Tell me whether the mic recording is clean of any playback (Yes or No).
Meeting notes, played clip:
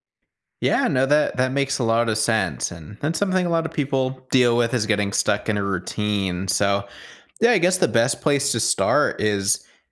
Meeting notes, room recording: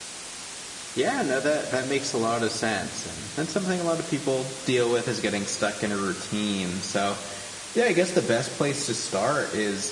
No